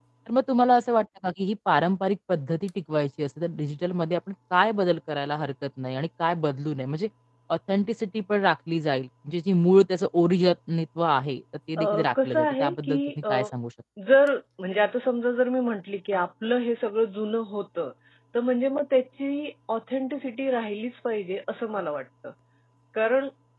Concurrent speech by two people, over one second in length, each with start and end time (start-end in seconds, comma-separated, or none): 11.8-13.5